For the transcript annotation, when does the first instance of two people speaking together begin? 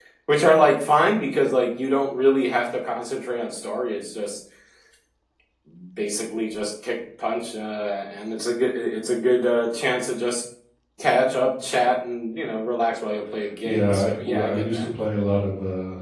13.7 s

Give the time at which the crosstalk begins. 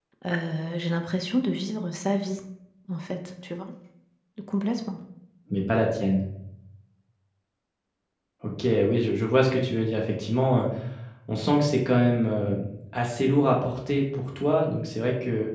none

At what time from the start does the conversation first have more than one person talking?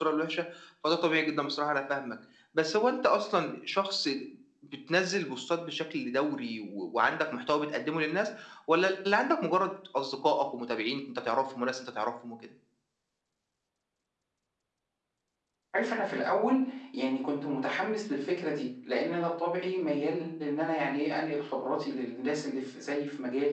none

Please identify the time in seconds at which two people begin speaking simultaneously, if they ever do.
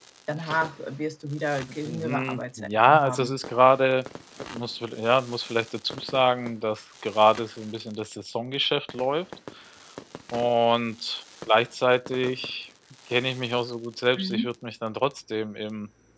1.7 s

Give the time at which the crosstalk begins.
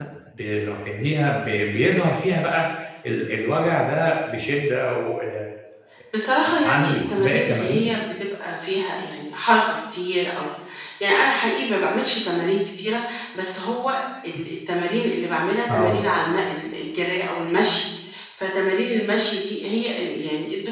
6.5 s

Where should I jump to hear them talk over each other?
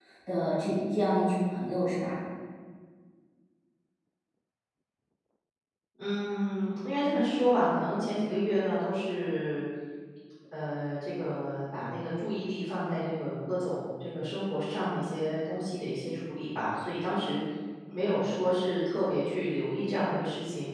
none

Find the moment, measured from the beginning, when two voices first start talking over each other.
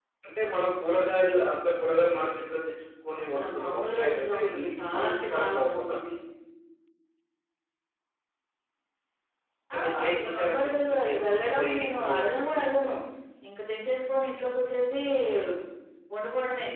3.2 s

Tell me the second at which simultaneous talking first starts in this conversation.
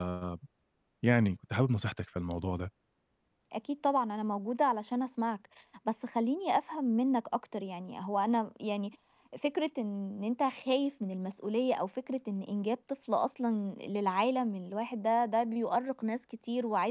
none

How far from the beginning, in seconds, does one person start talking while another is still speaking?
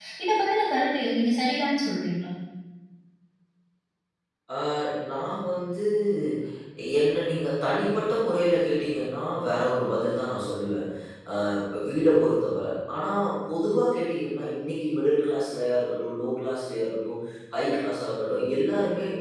none

